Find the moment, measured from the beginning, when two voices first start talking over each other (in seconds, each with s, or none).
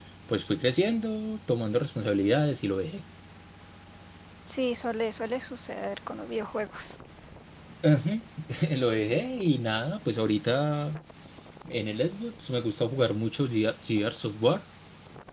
none